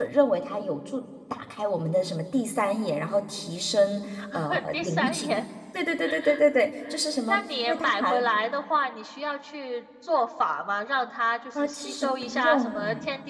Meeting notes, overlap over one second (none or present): present